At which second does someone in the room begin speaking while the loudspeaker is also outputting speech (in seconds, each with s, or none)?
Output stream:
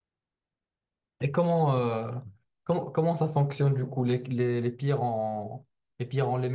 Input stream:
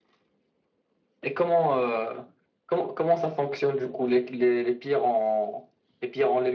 none